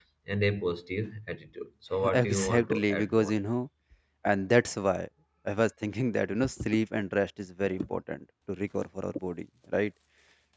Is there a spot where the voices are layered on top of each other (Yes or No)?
Yes